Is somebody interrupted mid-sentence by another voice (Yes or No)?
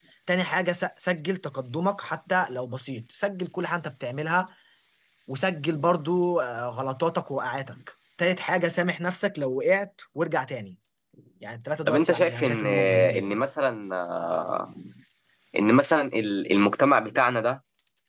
Yes